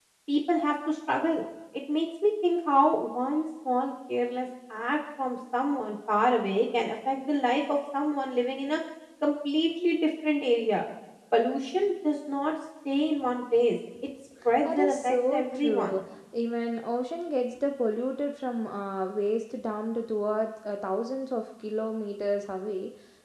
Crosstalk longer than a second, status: present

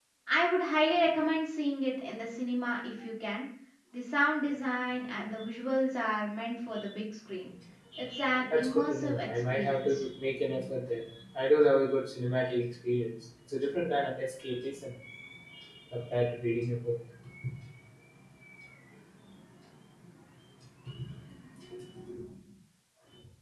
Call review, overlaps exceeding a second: present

